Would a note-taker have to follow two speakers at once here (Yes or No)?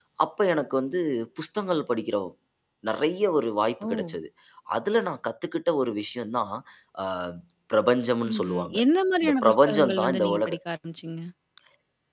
Yes